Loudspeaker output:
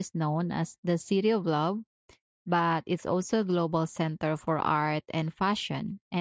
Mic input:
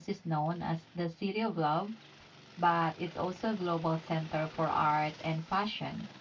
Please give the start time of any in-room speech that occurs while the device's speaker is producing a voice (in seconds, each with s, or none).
none